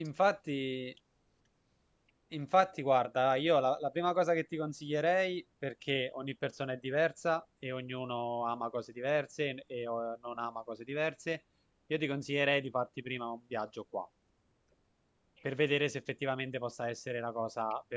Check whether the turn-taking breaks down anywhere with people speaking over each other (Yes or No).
No